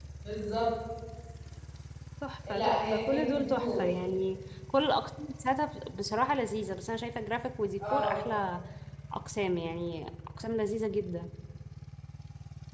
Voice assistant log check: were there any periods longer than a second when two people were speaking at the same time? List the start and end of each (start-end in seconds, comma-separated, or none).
2.5-3.8